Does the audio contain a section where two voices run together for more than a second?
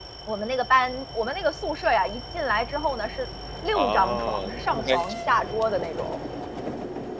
Yes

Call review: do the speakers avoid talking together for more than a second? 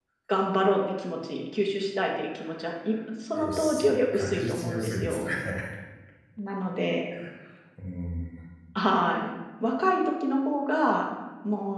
No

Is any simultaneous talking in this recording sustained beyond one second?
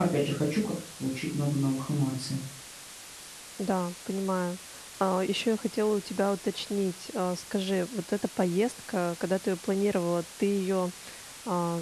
No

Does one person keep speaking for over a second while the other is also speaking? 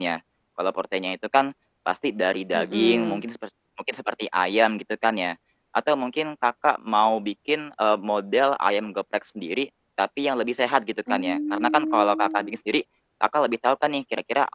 Yes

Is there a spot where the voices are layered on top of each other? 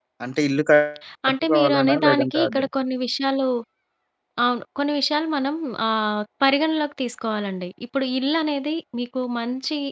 Yes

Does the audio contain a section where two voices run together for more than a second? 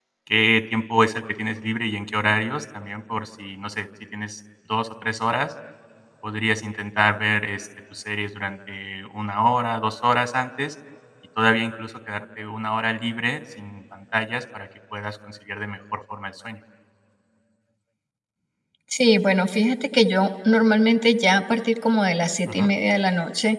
No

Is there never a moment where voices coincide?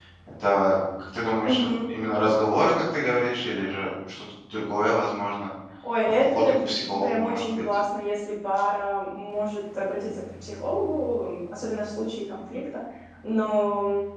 No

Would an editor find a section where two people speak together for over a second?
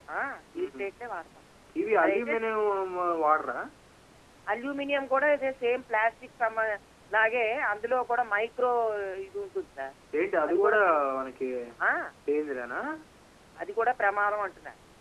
No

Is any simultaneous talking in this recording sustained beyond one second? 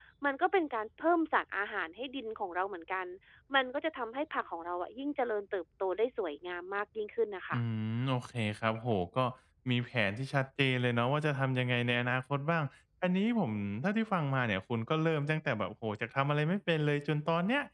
No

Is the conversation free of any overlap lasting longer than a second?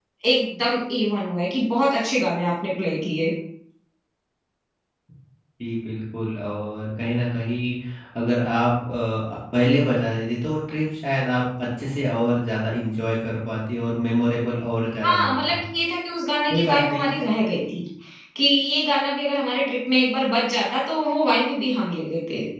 Yes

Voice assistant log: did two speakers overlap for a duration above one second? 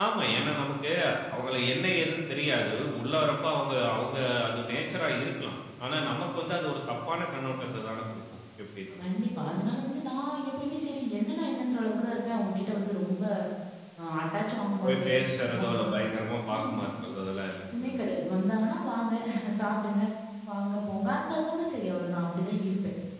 No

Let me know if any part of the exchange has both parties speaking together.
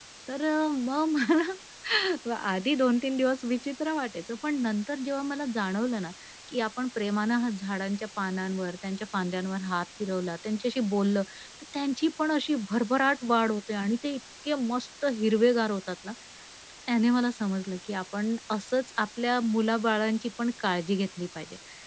No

